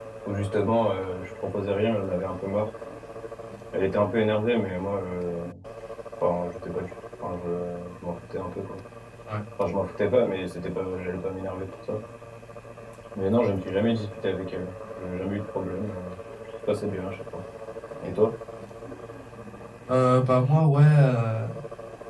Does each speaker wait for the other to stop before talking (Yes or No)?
Yes